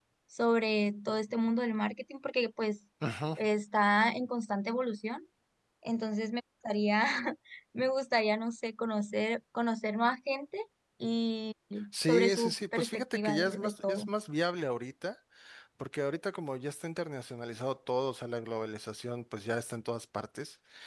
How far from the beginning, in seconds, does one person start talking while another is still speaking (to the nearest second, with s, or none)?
12 s